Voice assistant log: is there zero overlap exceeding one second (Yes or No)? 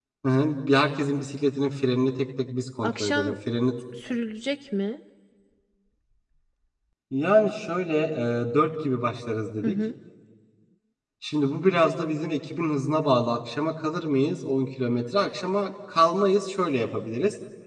Yes